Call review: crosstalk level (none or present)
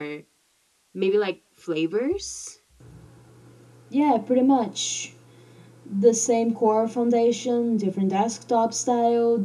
none